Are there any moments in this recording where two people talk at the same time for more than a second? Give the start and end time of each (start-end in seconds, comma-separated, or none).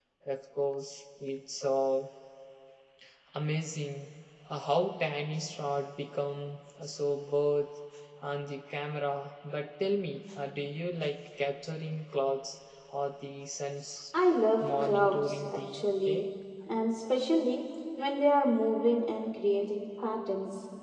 14.6-16.2